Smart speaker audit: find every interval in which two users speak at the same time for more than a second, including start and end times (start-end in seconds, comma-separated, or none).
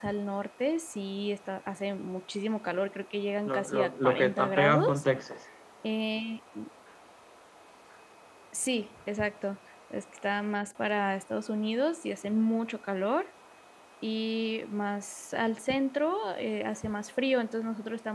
3.5-5.0